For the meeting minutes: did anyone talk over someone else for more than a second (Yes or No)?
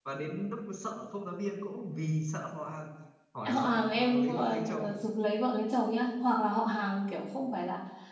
Yes